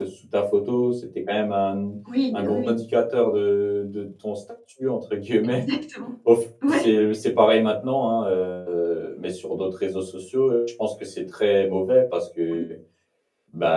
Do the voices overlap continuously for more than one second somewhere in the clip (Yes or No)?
No